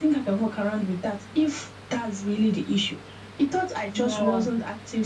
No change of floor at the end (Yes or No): Yes